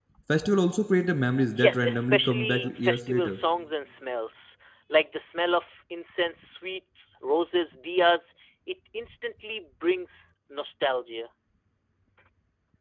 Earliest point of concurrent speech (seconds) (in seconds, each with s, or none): 1.5 s